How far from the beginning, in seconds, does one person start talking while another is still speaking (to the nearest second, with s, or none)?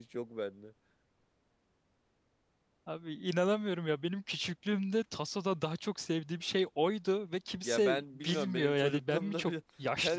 8 s